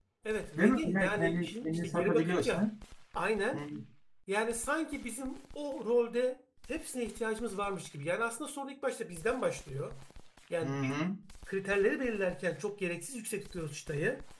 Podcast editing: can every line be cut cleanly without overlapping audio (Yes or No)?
No